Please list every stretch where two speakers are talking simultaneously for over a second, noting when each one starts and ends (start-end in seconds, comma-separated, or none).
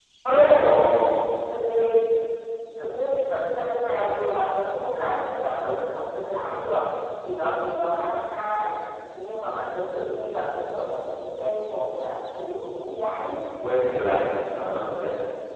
none